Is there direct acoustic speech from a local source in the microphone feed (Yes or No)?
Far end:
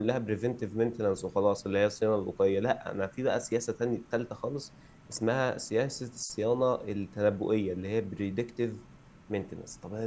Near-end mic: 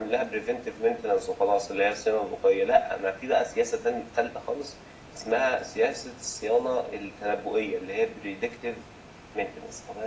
No